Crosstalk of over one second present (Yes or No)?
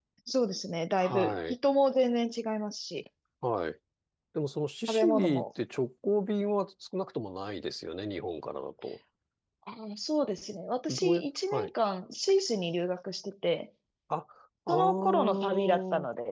Yes